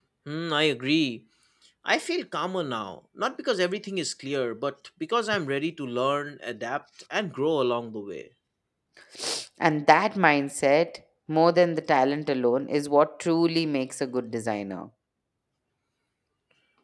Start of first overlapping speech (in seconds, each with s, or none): none